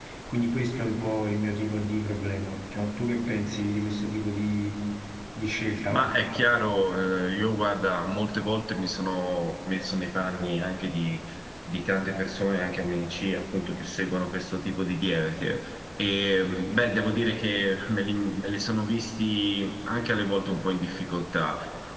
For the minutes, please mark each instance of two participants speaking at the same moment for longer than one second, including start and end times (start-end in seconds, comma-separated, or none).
none